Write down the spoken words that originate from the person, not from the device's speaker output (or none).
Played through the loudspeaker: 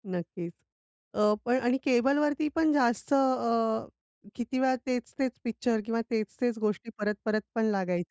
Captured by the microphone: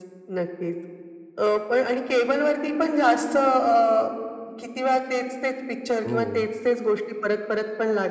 हो.